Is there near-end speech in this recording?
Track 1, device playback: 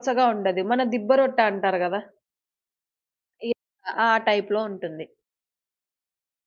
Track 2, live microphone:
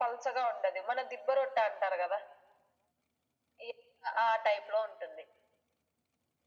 No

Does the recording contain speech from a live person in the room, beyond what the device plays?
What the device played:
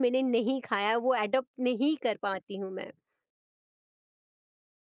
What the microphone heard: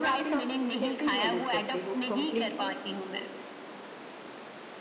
Yes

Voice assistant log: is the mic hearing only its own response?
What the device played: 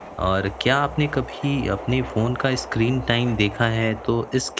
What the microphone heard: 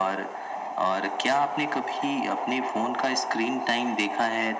Yes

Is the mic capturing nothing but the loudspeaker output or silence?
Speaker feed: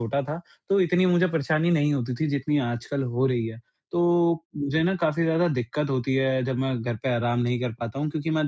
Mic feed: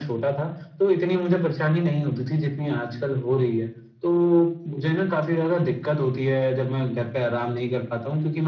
Yes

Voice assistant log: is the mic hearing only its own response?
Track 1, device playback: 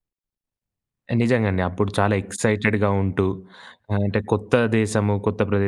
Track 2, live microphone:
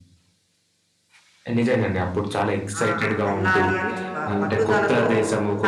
No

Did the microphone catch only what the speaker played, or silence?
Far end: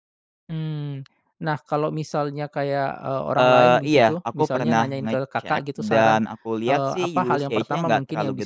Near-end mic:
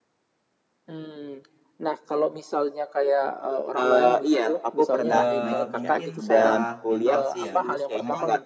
No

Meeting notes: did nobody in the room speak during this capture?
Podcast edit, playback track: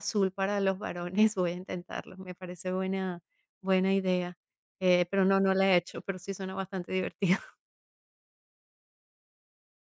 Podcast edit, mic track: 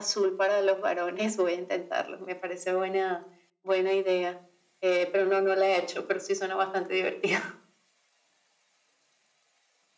Yes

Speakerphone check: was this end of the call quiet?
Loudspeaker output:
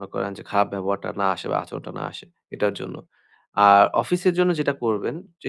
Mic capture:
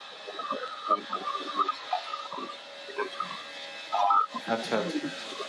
No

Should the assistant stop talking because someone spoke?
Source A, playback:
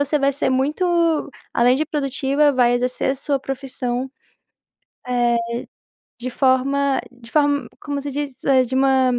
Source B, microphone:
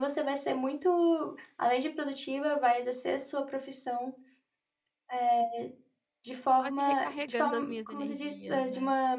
Yes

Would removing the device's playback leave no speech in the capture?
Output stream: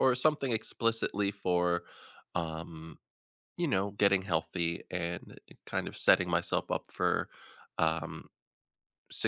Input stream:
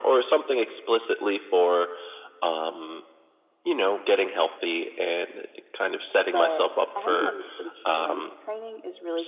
No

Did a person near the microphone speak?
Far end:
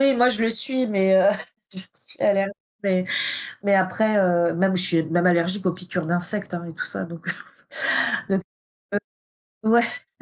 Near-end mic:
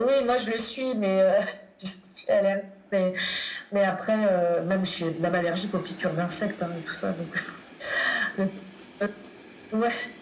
No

